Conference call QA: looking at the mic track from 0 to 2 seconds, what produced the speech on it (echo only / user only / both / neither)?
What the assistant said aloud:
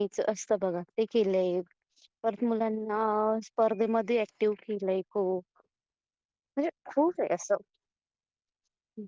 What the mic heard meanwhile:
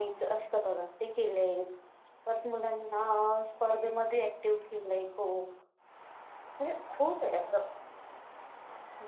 echo only